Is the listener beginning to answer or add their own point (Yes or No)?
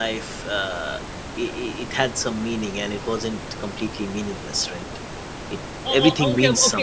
Yes